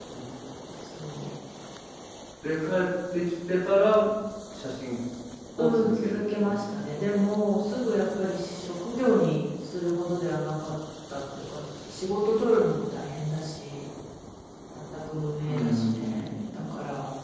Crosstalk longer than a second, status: present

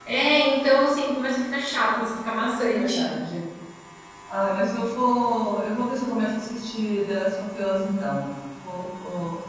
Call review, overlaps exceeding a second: none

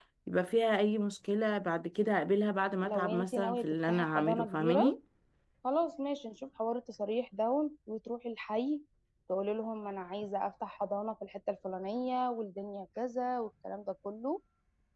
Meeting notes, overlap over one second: present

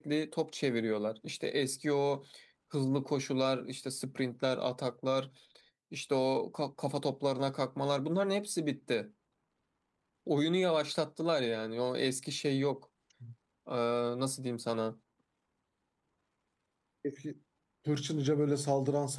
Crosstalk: none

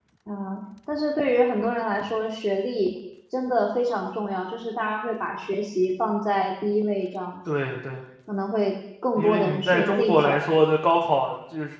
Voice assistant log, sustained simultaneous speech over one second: present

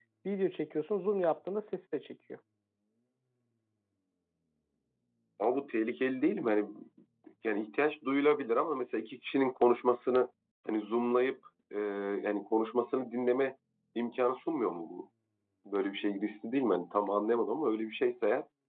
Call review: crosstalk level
none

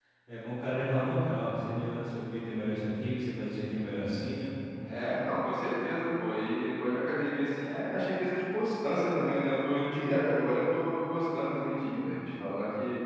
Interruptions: none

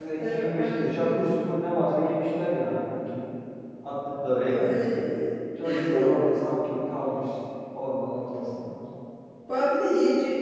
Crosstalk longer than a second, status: present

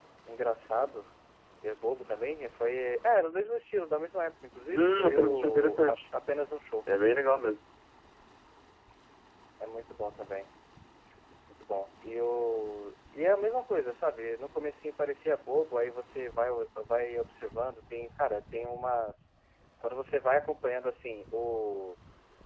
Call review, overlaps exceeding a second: present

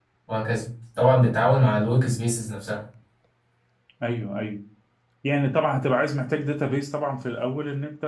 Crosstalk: none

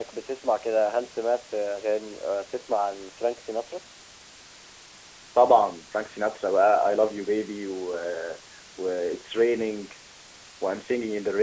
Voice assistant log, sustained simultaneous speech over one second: none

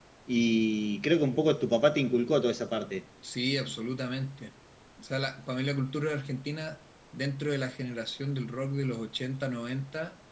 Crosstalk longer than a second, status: none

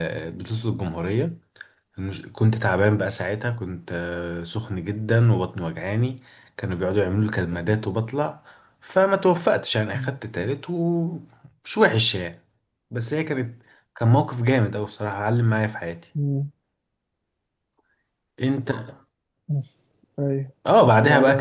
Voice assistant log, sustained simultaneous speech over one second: none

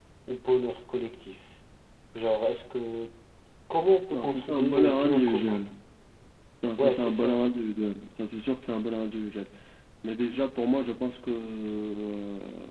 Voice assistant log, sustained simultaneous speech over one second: present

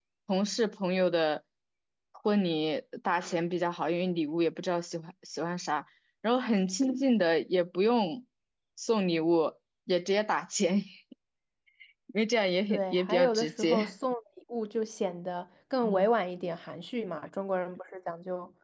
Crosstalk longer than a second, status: present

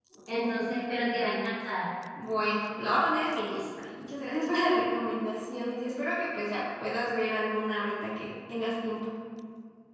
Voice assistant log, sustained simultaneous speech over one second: none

